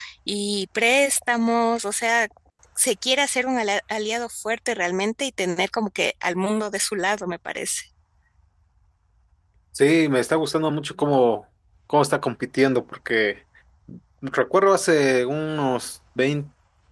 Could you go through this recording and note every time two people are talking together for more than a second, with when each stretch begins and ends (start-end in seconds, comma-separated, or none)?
none